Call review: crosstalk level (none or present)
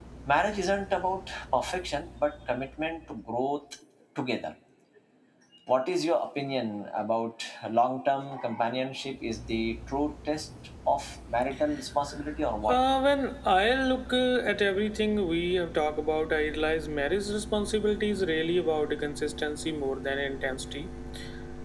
none